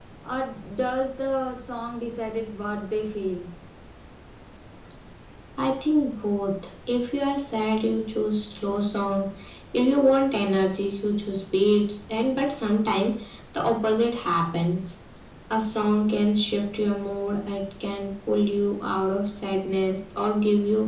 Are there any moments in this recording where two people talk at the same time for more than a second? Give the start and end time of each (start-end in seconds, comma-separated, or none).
none